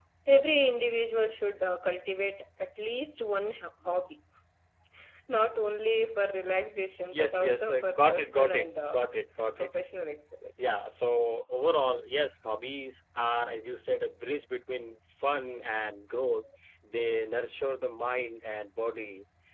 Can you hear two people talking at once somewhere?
Yes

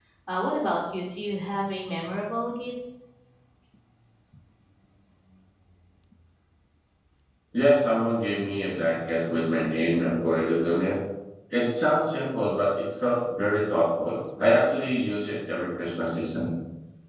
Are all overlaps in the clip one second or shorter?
Yes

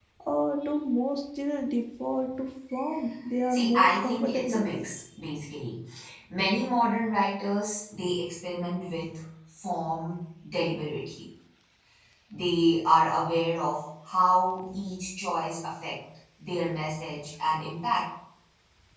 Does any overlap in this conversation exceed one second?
Yes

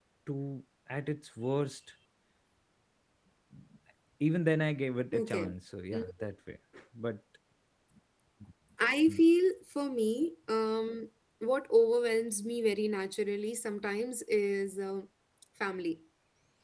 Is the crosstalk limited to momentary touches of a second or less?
Yes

